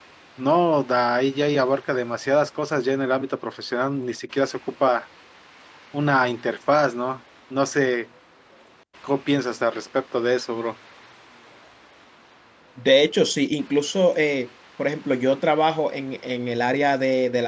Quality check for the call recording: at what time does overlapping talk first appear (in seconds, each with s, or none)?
none